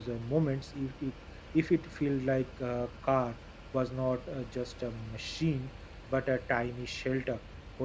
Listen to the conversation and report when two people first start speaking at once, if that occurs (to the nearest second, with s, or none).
none